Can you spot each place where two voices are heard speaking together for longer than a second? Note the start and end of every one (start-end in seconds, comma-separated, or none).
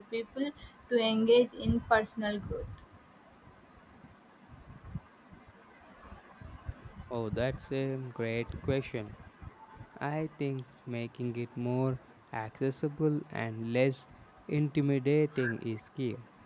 none